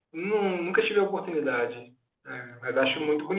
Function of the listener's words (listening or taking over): listening